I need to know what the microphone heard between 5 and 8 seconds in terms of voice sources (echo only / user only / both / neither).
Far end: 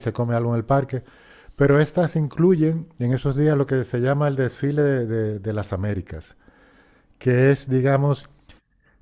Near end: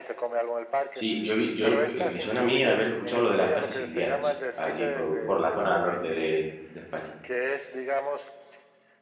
both